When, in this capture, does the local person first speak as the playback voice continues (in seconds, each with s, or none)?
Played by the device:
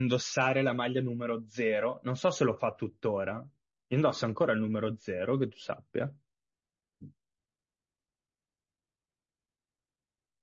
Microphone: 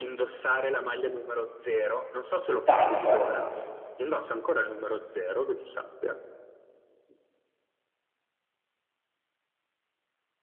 2.6 s